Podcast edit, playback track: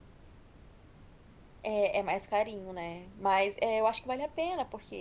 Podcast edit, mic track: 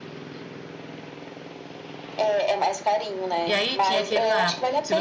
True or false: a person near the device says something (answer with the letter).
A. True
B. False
A